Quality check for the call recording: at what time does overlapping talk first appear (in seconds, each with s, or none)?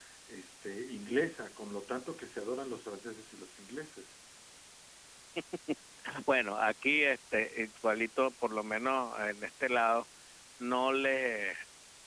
none